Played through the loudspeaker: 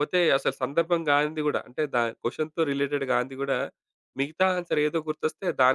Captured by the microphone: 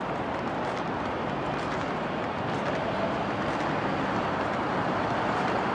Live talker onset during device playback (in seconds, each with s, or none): none